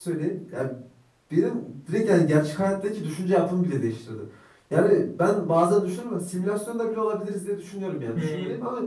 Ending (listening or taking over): listening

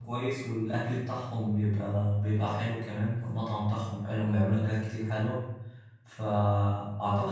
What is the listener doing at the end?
listening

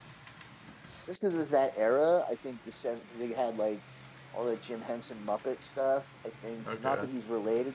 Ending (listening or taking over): listening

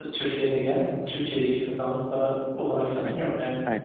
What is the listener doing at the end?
taking over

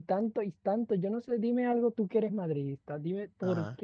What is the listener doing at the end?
listening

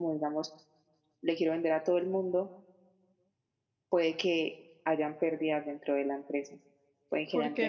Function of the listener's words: listening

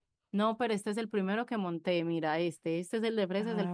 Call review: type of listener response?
taking over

